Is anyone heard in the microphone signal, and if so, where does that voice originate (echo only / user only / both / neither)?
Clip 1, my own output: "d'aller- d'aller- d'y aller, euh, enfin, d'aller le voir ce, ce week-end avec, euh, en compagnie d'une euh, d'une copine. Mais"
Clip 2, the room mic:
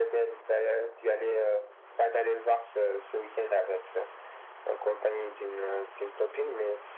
echo only